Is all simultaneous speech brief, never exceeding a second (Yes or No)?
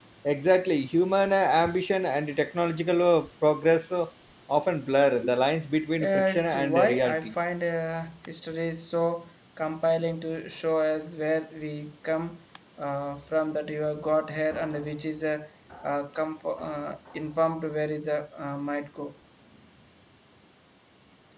No